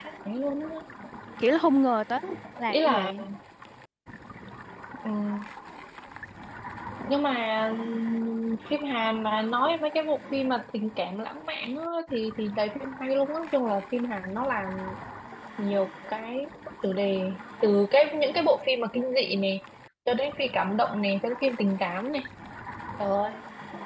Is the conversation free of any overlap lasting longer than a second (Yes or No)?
Yes